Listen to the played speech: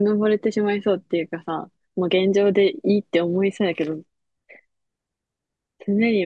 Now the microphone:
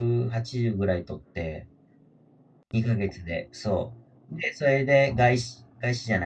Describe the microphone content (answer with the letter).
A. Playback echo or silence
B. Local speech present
B